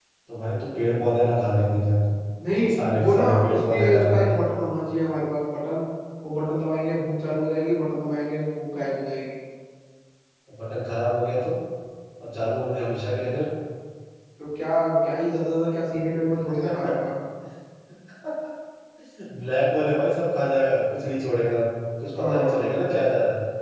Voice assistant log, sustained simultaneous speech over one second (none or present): present